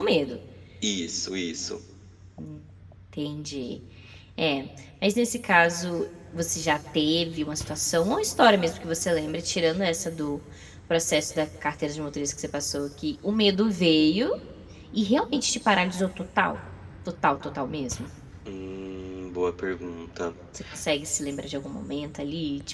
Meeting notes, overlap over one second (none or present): none